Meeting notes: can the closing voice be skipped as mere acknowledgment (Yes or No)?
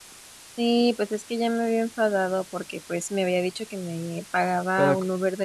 Yes